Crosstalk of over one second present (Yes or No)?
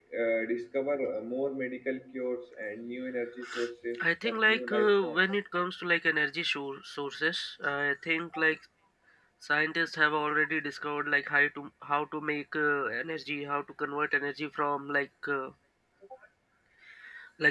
Yes